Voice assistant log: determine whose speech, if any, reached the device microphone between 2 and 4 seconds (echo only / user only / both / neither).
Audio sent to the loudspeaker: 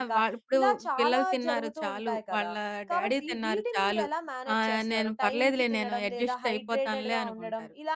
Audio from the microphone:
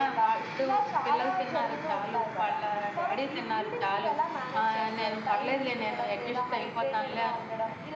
echo only